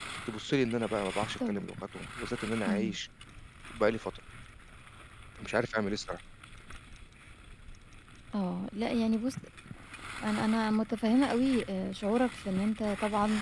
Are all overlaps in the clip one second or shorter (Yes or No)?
Yes